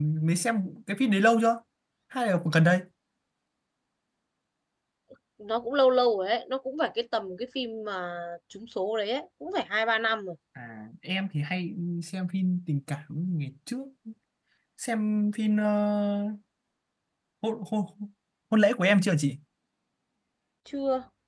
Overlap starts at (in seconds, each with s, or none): none